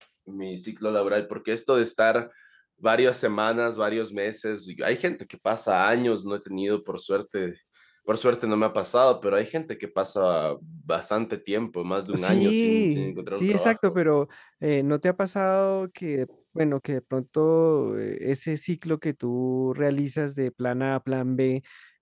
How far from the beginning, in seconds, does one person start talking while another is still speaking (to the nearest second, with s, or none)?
12 s